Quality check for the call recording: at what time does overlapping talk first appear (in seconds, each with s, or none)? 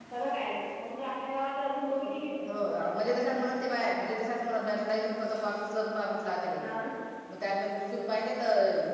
none